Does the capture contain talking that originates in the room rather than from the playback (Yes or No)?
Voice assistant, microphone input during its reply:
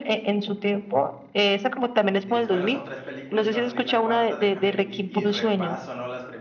Yes